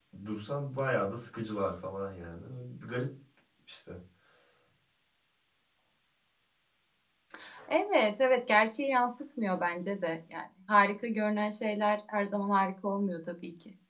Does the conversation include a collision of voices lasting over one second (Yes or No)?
No